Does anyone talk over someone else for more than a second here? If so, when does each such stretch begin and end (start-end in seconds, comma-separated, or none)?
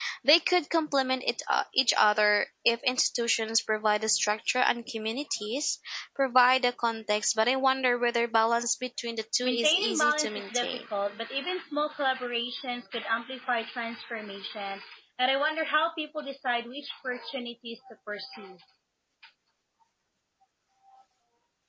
9.4-10.8